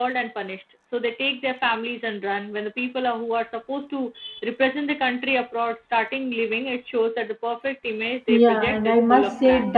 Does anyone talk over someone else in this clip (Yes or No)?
Yes